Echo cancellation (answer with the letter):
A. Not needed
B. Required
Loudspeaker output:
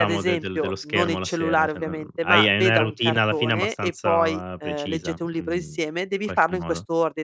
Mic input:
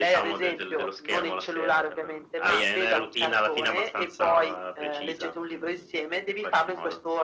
B